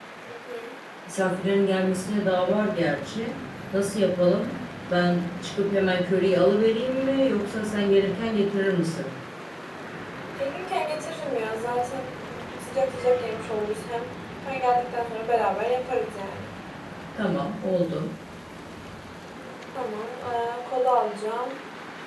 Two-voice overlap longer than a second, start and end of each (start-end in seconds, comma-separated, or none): none